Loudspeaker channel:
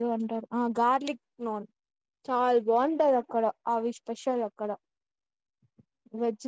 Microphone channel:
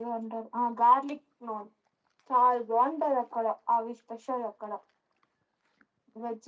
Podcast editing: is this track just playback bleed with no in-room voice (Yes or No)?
Yes